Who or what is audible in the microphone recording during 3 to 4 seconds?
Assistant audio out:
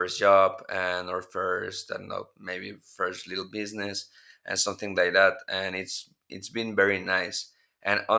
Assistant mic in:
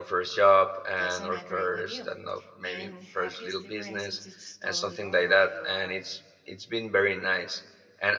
both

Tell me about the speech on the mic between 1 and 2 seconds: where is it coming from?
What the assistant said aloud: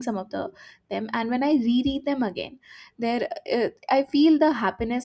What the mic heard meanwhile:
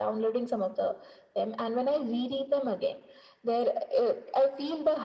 echo only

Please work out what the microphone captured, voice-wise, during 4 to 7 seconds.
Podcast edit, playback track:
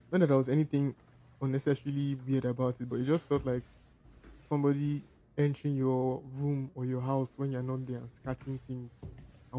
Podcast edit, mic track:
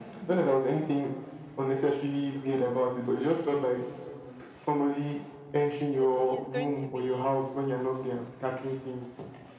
both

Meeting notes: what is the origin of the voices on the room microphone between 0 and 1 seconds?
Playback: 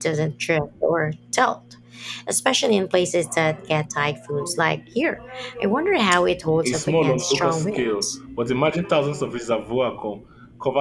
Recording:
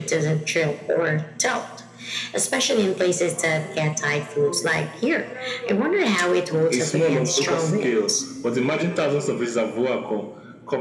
echo only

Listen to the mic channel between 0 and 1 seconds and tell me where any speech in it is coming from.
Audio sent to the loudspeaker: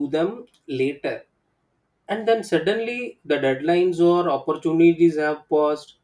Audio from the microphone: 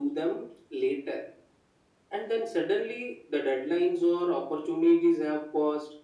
echo only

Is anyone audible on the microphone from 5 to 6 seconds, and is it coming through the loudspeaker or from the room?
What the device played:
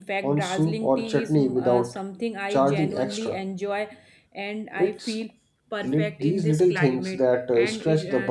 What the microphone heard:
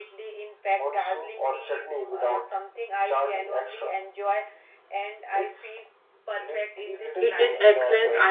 echo only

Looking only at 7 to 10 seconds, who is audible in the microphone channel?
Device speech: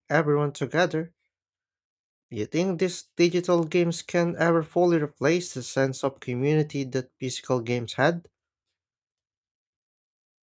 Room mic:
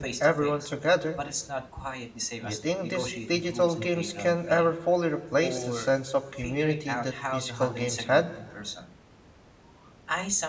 both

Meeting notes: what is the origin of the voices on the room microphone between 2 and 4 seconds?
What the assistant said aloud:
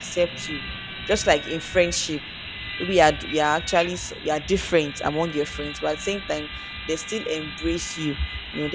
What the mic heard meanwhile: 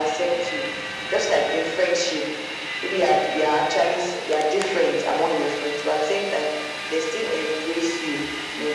echo only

